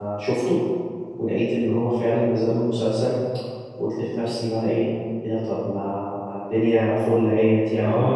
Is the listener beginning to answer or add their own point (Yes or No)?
Yes